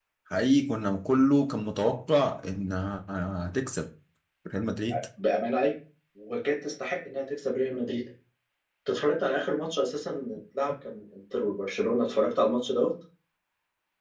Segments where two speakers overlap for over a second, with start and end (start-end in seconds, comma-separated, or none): none